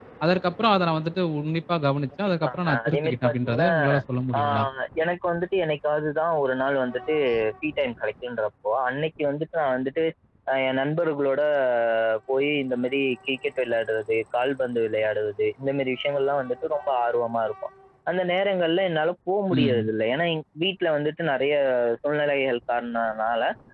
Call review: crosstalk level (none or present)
present